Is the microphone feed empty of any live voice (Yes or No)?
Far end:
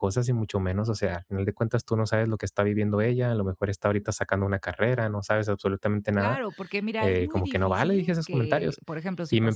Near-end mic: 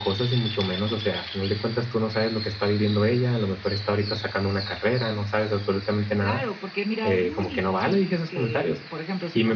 Yes